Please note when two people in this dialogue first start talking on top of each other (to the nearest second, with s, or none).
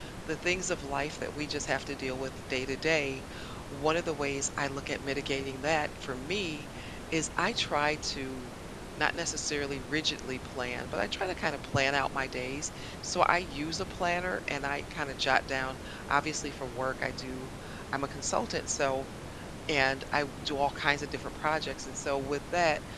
none